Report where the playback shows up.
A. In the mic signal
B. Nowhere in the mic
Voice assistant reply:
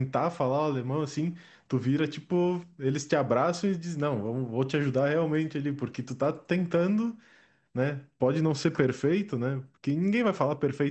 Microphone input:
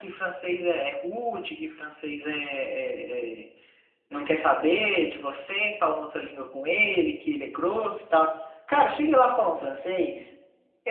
B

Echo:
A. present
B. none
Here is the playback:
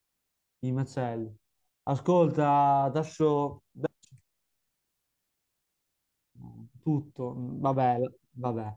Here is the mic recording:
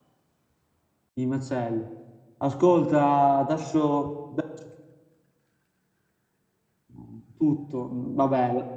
A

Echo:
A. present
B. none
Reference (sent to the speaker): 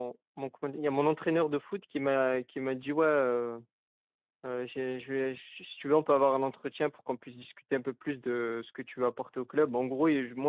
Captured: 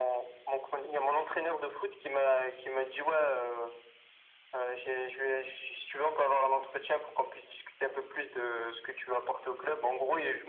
A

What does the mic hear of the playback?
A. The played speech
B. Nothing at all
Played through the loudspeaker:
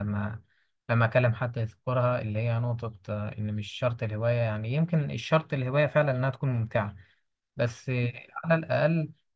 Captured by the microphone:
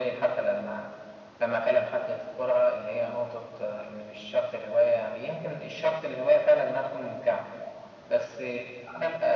A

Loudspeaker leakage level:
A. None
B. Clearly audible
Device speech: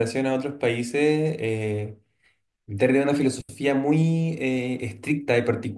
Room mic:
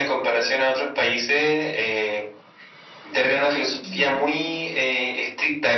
B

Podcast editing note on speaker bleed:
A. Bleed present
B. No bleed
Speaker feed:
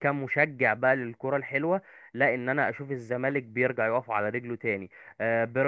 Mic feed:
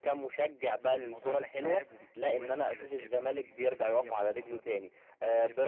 A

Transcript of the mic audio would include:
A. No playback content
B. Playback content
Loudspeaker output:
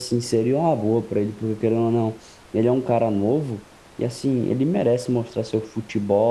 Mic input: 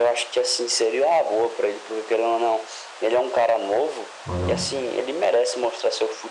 B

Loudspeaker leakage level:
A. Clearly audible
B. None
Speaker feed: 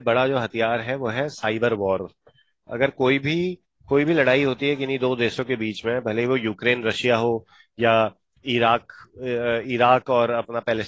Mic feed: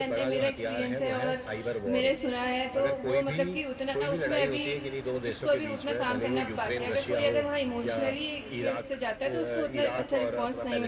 A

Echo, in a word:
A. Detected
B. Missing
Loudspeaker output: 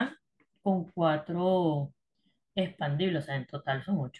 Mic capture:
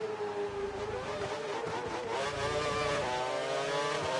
B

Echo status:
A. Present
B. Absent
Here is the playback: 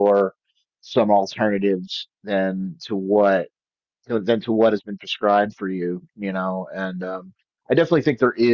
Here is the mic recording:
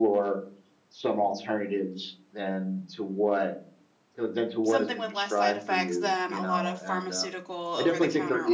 A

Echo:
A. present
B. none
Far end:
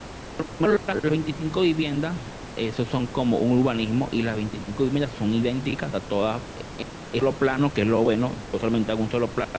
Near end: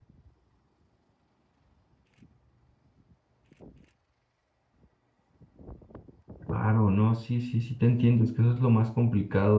B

